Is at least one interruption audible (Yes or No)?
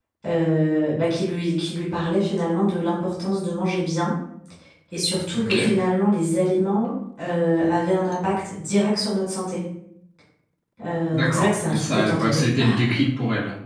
Yes